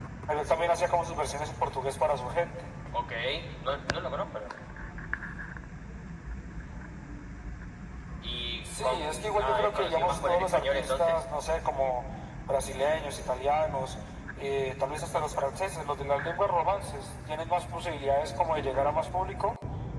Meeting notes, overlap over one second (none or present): present